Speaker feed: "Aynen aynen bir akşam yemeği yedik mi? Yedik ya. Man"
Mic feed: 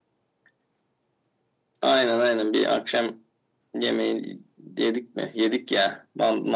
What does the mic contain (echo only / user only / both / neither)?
echo only